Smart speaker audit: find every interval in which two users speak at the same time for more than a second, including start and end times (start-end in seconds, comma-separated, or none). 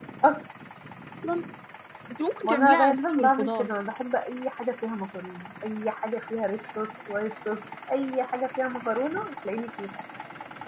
2.4-3.7